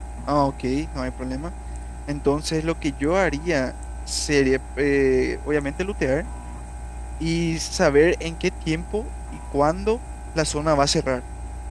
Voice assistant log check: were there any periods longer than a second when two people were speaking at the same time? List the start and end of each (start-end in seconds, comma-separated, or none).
none